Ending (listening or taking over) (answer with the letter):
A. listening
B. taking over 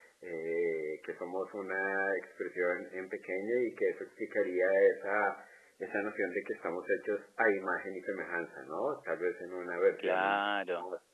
B